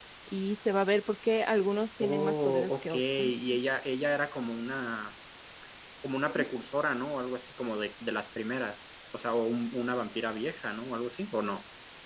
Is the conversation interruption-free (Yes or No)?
No